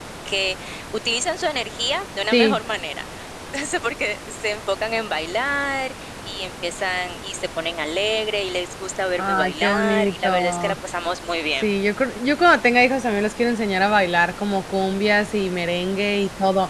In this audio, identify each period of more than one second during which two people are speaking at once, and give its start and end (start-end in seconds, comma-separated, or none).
9.2-10.7